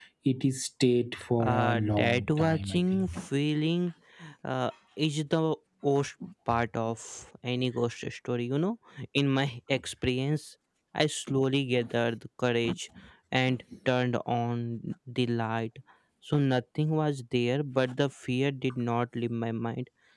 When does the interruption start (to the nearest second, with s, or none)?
1 s